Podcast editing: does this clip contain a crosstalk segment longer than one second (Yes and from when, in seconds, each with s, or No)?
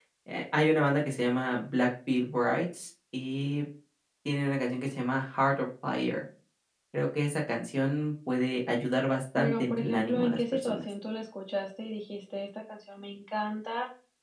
Yes, from 9.4 s